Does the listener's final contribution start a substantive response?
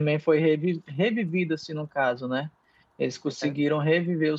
No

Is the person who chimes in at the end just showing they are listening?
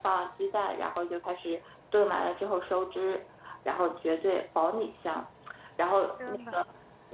Yes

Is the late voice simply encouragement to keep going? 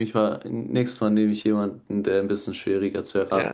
No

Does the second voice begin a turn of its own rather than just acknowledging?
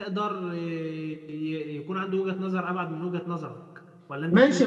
Yes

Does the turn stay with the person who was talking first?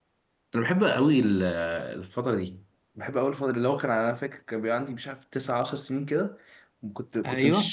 Yes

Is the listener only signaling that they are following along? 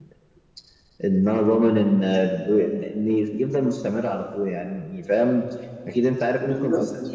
Yes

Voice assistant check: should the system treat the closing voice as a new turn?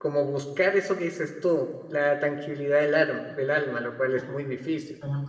Yes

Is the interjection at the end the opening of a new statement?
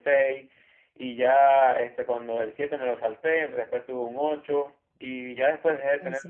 No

